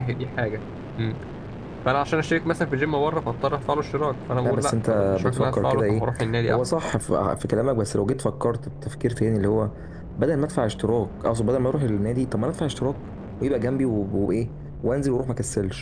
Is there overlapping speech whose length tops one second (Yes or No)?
Yes